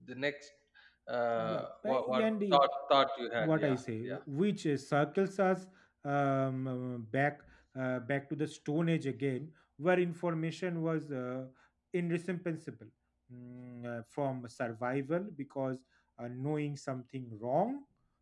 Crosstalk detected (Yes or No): Yes